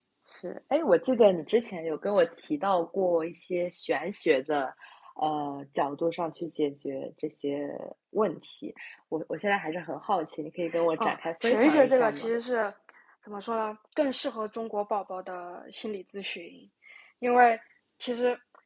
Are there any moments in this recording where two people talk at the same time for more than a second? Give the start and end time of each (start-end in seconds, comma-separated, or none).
11.0-12.3